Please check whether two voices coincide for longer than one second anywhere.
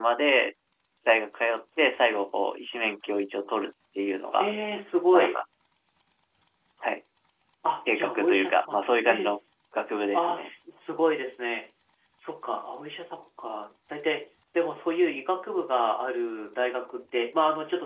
Yes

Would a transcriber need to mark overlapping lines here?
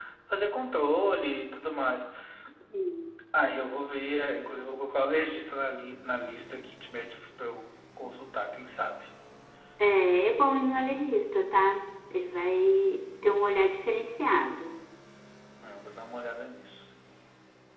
No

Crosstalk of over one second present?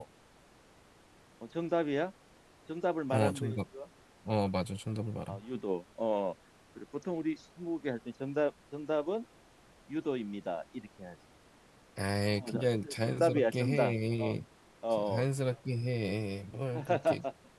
Yes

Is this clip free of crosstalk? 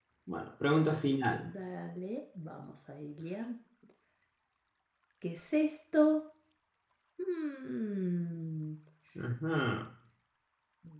Yes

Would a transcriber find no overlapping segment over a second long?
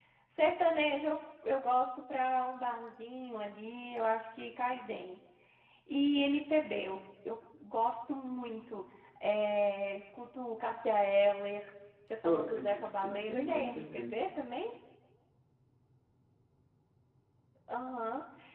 No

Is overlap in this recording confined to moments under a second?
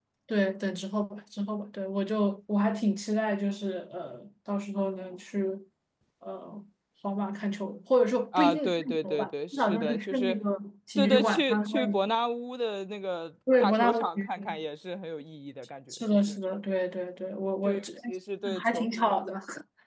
No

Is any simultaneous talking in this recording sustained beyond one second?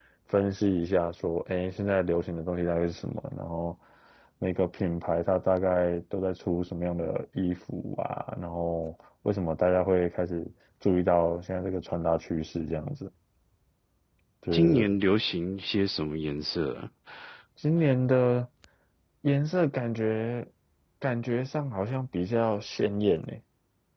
No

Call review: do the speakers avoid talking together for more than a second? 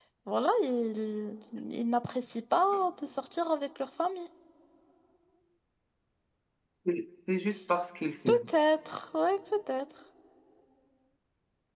Yes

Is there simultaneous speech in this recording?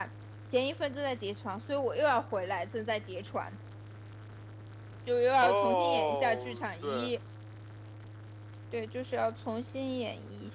Yes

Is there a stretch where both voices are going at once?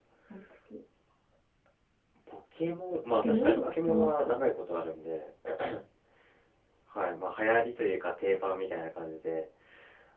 Yes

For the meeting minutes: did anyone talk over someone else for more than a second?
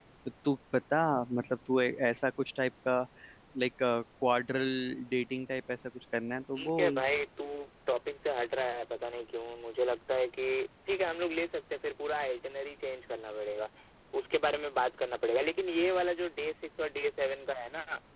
No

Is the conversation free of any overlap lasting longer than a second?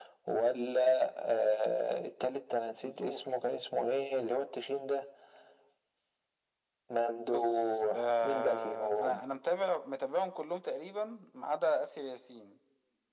No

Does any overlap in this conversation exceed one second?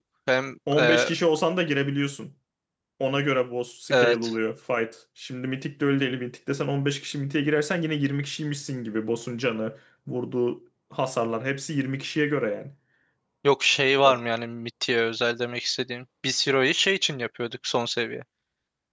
No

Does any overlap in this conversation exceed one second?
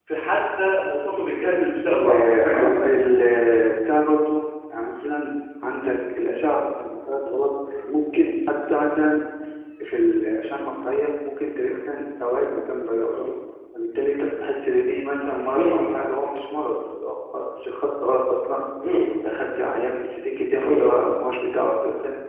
No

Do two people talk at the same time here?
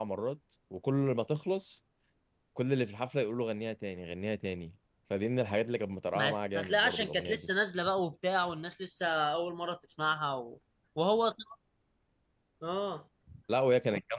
Yes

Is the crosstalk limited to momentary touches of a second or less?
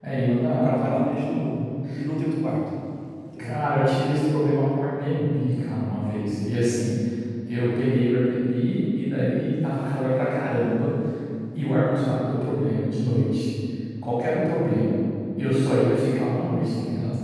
Yes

